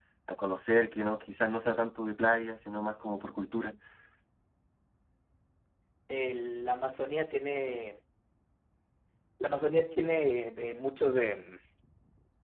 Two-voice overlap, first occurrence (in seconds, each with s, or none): none